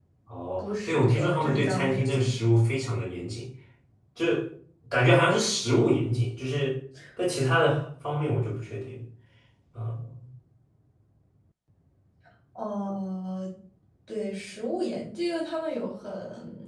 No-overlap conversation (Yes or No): No